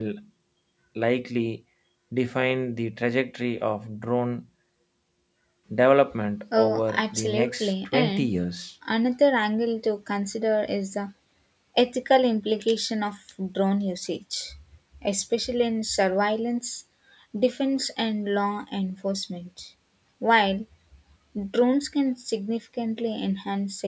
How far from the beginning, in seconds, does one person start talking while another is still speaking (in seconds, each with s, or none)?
6.5 s